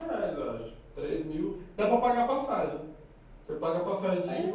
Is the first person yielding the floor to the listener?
No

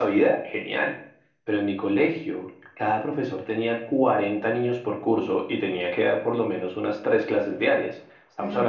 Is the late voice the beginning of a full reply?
No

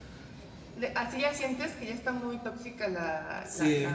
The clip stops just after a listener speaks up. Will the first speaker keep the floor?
No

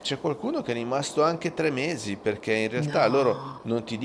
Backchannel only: Yes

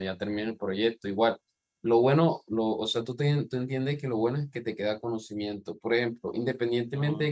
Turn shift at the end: No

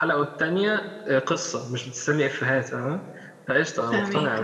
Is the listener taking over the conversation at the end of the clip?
No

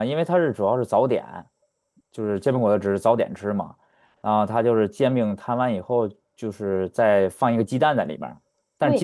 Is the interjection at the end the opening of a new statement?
Yes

